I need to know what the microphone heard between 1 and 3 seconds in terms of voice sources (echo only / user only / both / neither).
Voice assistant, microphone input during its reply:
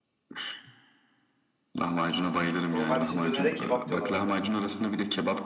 both